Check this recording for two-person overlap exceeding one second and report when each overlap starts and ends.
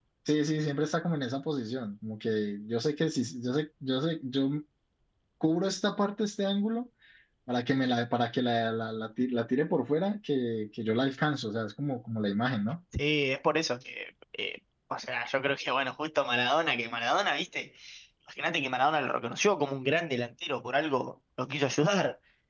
none

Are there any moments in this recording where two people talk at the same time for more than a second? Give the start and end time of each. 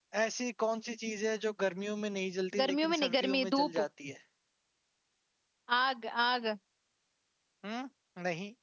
2.6-3.9

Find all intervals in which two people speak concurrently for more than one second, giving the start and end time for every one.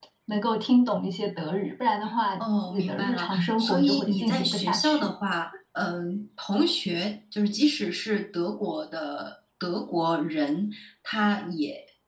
2.4-5.1

